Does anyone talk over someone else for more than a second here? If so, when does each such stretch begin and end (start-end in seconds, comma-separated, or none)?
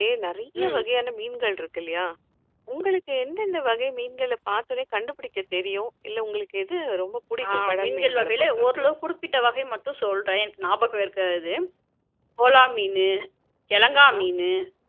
7.5-8.9